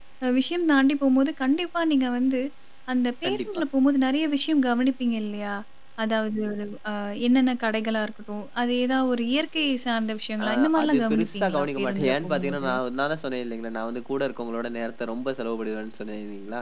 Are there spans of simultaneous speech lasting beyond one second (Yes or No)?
Yes